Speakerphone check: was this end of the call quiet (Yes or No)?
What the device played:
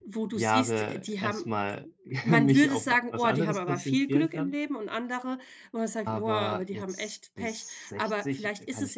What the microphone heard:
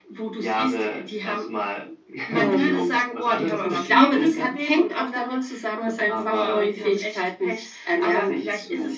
No